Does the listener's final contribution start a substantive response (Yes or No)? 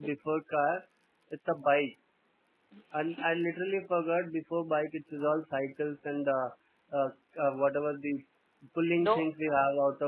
No